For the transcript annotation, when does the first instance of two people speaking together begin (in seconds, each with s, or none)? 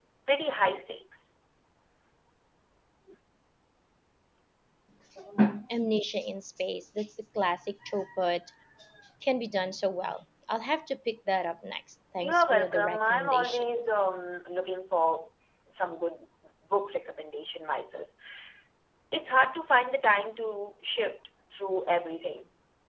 12.2 s